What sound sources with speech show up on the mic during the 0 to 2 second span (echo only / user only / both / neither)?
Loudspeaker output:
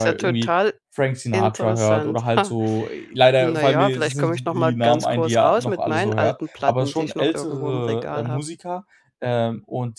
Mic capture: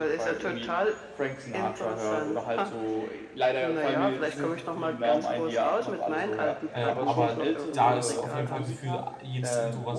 echo only